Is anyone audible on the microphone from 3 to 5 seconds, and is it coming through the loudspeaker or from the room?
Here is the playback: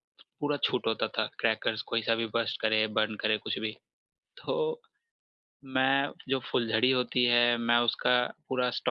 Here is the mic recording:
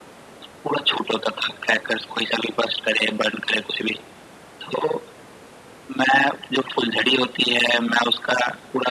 echo only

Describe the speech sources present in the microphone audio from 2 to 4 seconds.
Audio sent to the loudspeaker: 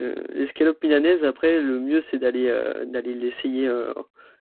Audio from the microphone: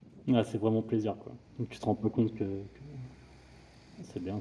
user only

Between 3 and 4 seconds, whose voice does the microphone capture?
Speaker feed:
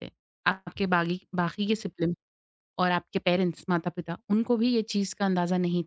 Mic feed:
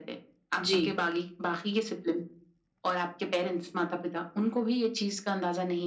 echo only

